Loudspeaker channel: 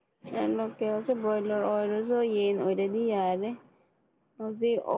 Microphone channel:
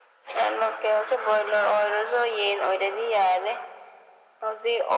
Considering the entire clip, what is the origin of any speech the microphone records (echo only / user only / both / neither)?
echo only